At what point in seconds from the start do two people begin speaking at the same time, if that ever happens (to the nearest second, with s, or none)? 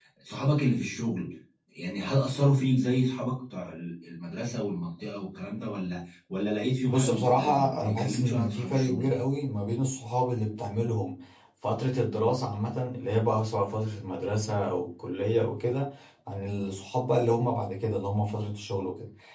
7 s